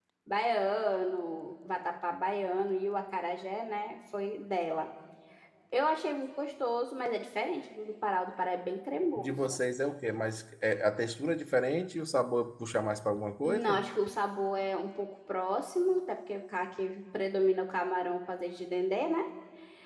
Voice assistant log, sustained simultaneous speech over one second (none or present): none